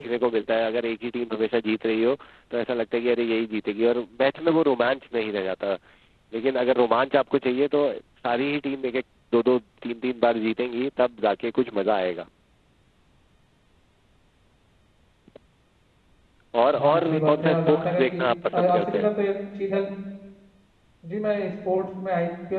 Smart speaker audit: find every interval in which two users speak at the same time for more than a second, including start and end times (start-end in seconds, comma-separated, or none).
16.8-18.2